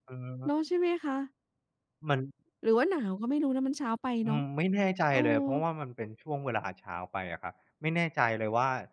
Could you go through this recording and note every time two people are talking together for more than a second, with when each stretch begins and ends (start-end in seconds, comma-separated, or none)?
none